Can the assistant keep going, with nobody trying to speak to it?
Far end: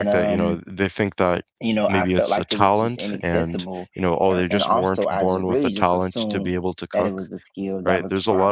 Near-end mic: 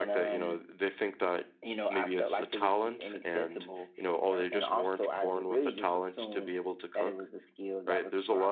Yes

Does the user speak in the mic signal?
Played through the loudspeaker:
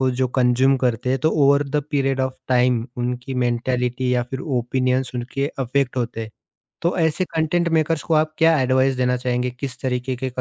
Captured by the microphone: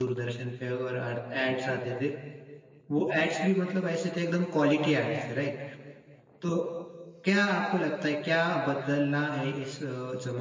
Yes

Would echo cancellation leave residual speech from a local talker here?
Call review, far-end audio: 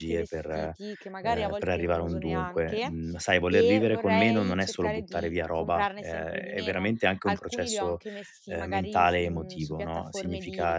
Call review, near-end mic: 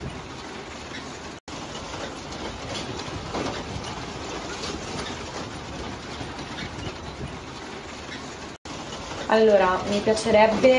Yes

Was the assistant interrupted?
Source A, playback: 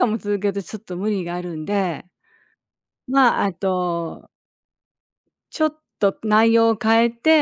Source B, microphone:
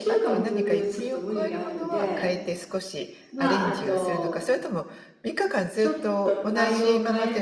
Yes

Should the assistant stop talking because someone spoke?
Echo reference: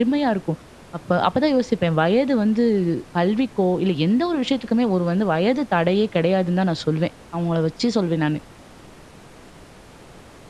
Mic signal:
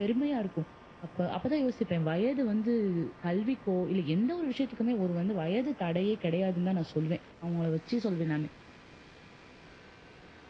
No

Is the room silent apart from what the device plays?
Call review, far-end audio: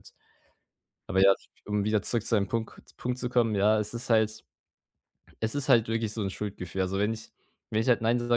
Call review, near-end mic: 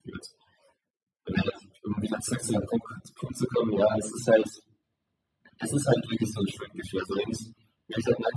Yes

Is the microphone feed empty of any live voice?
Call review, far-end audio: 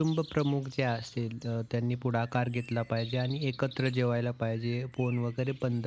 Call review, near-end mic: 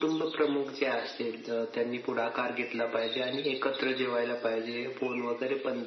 Yes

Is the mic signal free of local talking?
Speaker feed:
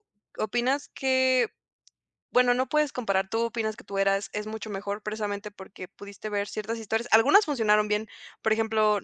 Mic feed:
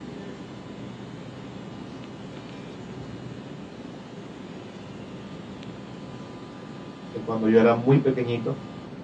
No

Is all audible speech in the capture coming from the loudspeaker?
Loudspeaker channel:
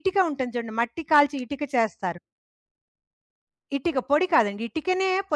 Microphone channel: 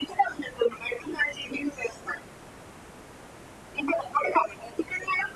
Yes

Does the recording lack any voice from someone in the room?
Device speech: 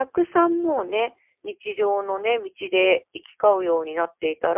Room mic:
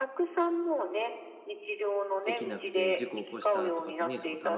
No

